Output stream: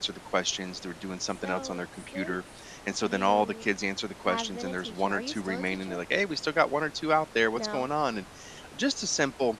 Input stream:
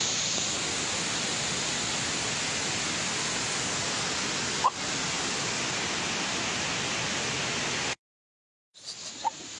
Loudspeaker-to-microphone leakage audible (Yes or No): No